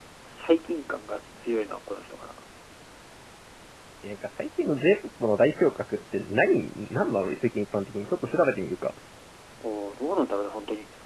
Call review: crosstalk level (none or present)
none